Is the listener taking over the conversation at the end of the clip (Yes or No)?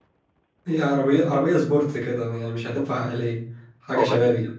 Yes